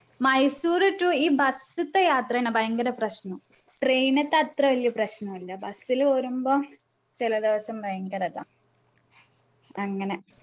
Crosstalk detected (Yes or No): No